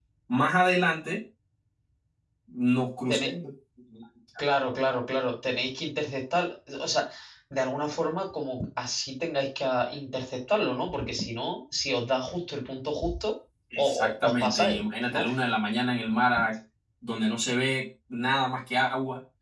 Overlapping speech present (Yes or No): Yes